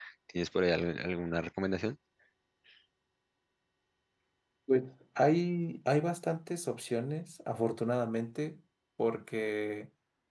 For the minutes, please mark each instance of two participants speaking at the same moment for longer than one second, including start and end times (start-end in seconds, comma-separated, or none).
none